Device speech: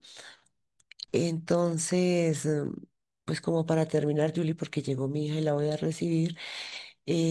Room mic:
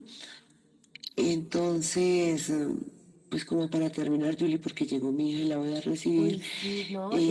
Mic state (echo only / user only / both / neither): both